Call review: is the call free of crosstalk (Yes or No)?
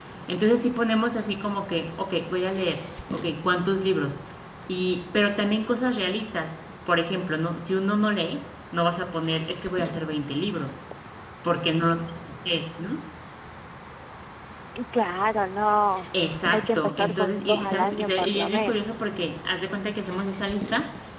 No